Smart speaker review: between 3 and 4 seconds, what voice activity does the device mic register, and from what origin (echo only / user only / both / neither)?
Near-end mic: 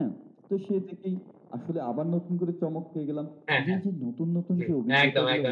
both